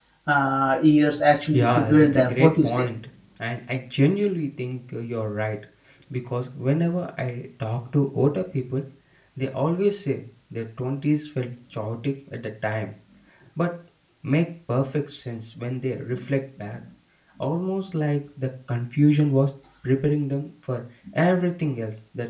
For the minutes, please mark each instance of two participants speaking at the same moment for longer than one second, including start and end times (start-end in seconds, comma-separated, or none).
1.5-2.8